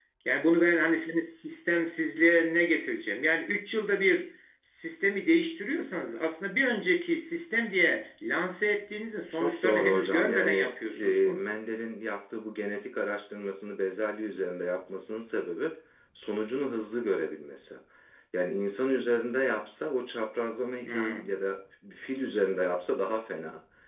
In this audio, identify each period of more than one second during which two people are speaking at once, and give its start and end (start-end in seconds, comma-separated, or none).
9.3-11.5